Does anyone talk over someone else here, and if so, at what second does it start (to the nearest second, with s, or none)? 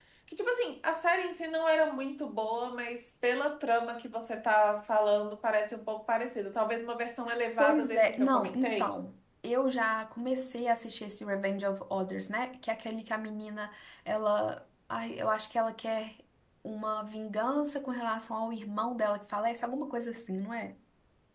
8 s